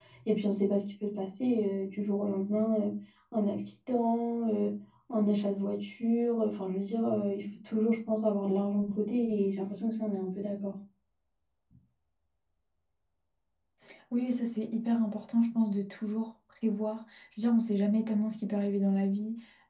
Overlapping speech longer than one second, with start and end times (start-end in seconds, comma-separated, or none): none